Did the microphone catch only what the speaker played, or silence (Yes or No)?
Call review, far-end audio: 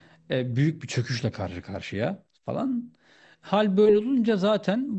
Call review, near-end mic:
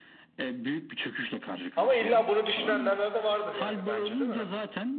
No